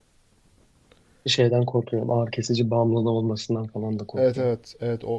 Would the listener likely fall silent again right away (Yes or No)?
No